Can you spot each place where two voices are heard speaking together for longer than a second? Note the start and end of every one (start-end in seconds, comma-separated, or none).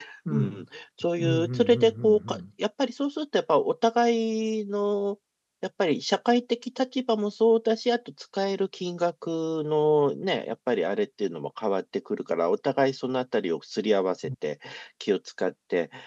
1.2-2.4